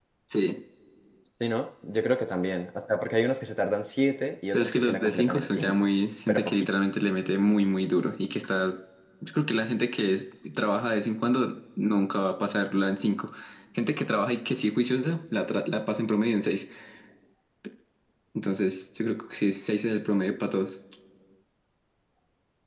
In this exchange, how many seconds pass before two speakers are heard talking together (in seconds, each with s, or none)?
4.5 s